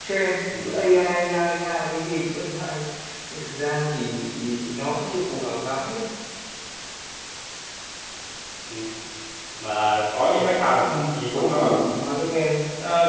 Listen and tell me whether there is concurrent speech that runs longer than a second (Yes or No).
No